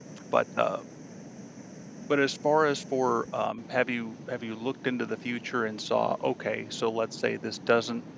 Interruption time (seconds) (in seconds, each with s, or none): none